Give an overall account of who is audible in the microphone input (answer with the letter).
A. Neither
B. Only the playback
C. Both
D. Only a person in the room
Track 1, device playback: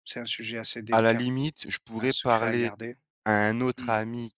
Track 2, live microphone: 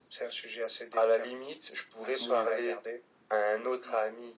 C